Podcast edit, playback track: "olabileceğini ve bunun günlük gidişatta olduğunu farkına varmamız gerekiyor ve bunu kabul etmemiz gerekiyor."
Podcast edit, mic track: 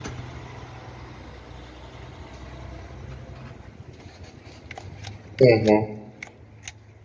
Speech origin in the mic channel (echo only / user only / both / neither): user only